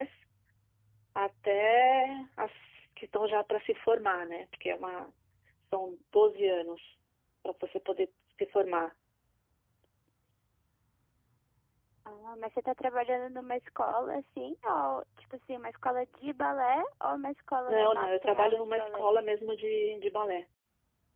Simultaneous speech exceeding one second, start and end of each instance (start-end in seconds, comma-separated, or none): 17.7-19.1